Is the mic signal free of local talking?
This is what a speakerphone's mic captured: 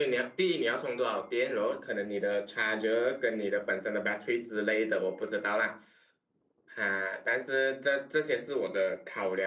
Yes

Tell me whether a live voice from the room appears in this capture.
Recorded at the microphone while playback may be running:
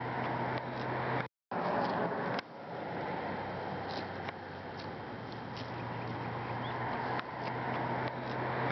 No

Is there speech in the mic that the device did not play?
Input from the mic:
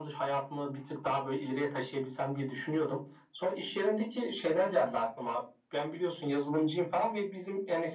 No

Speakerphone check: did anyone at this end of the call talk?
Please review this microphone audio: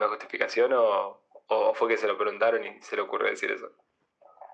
No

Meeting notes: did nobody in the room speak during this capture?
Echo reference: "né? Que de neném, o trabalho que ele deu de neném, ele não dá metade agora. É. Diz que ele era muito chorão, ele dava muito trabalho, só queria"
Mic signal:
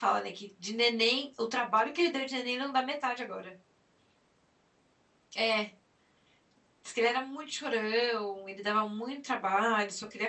Yes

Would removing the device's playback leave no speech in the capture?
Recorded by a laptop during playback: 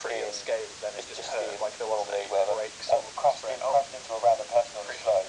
Yes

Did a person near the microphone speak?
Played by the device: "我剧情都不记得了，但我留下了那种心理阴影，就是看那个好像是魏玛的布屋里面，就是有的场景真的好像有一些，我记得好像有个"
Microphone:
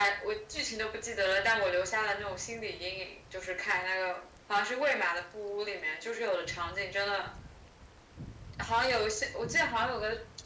No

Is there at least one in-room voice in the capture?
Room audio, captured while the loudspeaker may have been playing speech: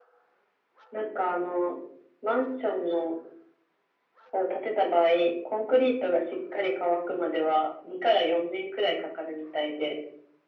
No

